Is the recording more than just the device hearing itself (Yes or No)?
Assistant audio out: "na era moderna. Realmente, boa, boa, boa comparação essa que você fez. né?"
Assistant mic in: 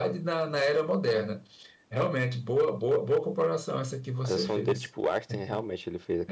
Yes